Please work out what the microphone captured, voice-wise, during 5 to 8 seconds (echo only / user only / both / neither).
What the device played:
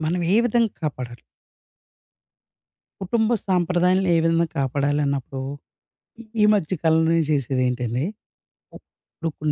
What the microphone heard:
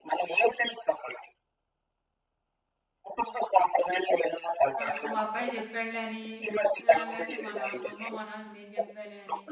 both